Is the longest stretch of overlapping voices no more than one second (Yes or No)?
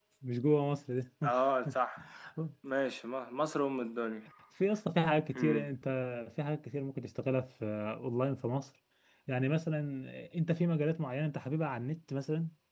Yes